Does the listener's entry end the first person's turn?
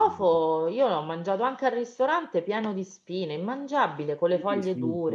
Yes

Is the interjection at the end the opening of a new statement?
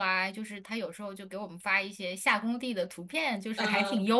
No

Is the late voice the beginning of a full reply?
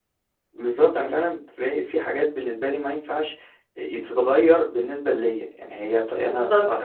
No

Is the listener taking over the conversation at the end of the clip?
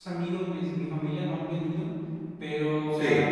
No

